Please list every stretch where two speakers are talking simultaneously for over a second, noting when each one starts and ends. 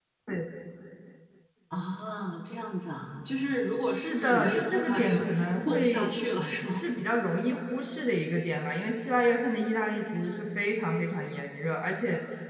3.9-6.1

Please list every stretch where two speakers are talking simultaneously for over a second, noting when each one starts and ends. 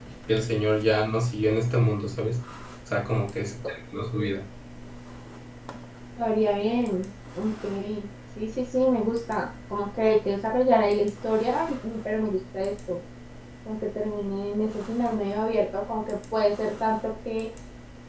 none

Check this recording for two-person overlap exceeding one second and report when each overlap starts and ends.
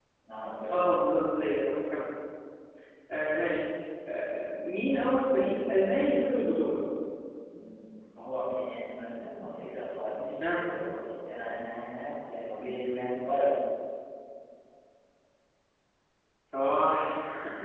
none

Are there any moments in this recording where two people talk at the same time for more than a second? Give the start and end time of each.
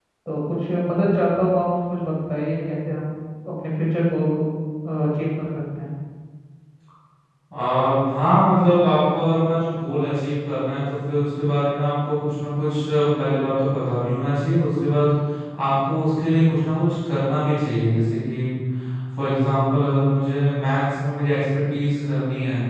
none

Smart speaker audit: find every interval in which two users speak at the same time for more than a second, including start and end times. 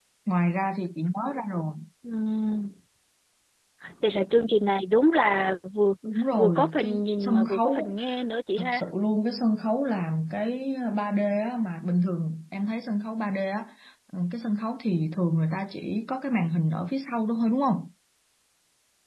6.4-7.9

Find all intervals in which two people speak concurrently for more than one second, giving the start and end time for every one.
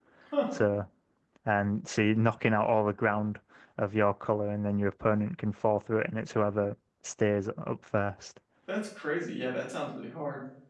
none

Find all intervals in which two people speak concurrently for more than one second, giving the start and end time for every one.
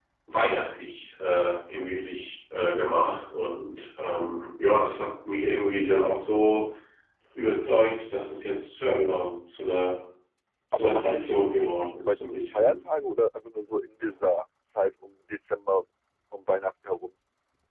10.7-12.7

